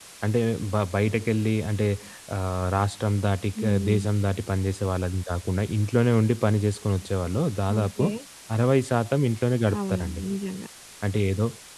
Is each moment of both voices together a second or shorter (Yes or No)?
Yes